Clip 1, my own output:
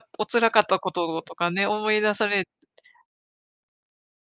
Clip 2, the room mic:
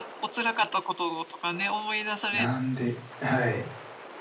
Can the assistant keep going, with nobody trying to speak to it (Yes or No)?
No